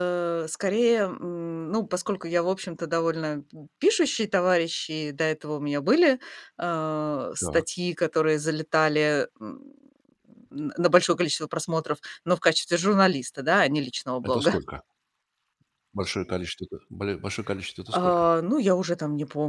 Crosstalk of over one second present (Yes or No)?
No